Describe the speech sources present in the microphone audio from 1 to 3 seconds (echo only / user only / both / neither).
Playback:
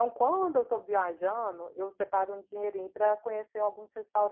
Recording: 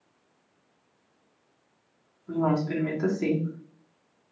user only